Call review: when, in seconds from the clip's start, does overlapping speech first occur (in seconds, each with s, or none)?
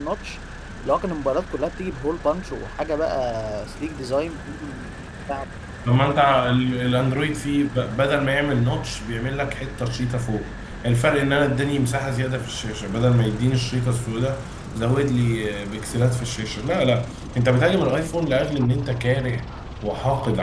none